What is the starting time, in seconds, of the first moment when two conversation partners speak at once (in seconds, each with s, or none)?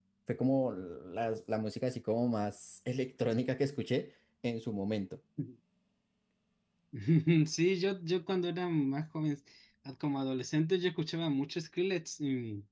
none